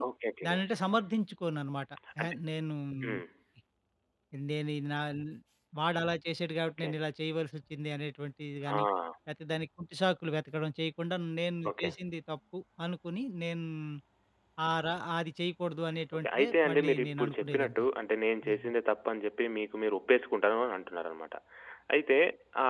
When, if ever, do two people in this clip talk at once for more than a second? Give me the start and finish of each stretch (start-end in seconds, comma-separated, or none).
16.2-17.8